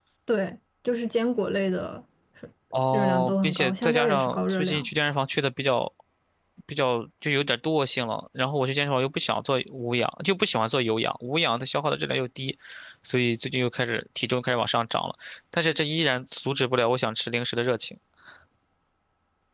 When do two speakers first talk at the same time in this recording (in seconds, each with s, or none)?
2.9 s